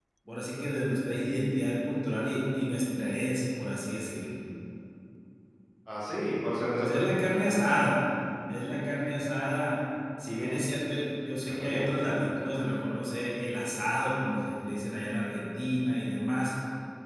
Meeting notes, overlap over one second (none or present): none